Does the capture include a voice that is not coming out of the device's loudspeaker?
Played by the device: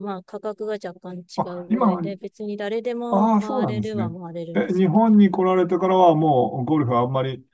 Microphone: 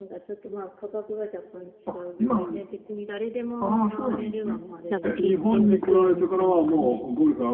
Yes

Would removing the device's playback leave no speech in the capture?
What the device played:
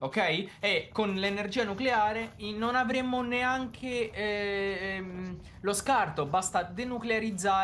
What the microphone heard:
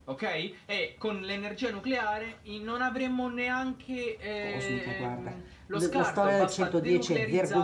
No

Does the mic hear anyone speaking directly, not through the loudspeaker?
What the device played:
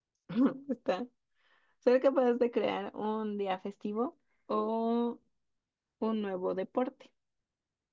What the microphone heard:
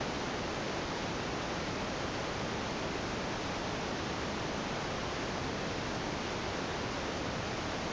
No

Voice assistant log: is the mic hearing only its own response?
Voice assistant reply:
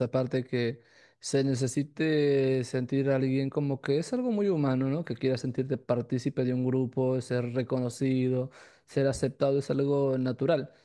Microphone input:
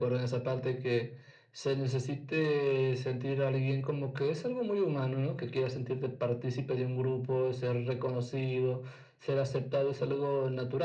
Yes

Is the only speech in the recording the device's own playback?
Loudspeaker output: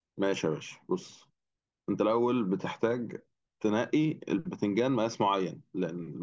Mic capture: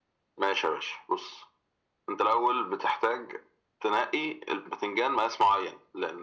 Yes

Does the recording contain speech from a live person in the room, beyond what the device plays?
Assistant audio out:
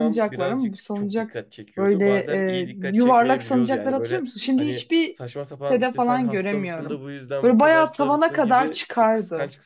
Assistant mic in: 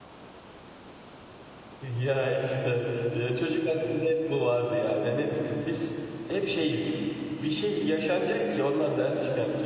Yes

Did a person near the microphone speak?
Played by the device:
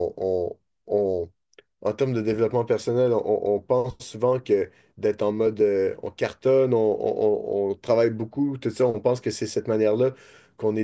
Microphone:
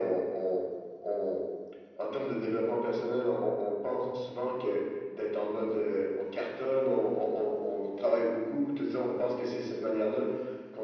No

